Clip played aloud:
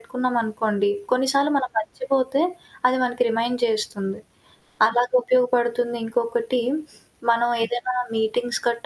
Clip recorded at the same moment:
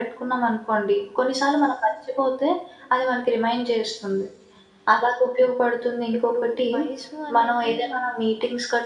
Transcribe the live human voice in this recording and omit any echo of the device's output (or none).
ఇప్పుడూ వయసు అనేది మనం